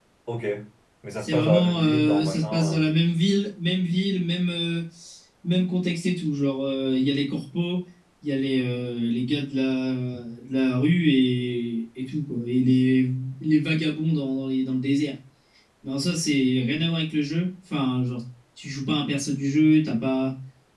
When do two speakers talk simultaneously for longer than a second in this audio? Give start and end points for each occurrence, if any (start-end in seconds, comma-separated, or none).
1.2-2.8